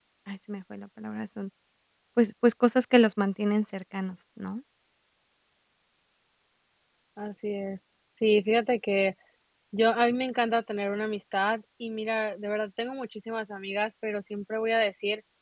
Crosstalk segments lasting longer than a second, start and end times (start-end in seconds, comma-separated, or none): none